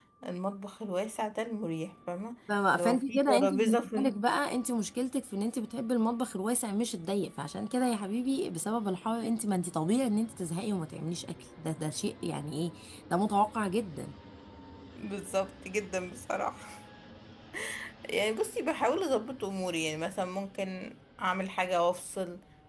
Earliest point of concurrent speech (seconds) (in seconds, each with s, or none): 2.7 s